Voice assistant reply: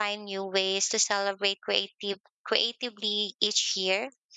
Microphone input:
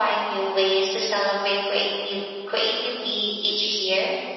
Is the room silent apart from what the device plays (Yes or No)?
Yes